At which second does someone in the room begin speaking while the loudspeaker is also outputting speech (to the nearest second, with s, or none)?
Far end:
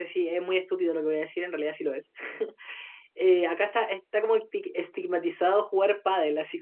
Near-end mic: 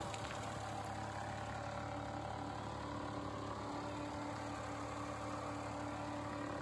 none